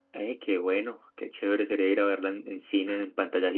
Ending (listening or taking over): taking over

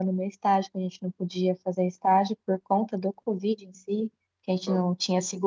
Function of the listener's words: listening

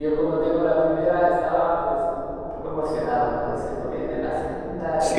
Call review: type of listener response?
taking over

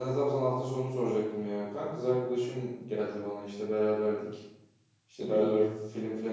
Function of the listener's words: listening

